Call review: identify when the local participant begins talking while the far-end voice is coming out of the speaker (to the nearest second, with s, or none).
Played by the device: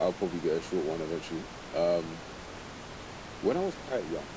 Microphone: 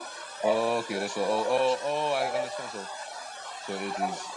0 s